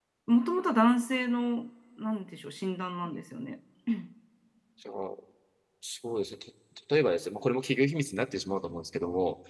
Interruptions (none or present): none